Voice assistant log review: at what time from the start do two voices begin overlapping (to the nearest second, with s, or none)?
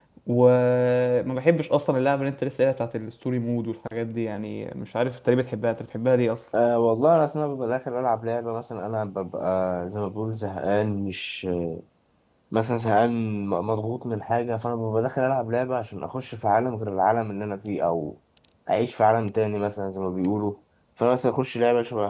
none